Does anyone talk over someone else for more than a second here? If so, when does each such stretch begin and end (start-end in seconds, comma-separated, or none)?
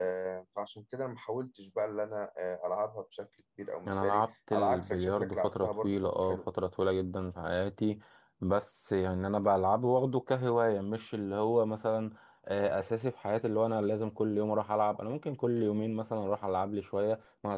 3.9-6.4